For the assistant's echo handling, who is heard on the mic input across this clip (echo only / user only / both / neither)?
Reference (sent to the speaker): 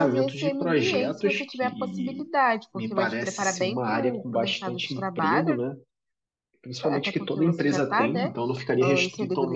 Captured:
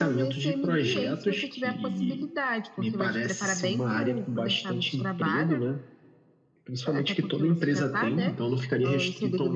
echo only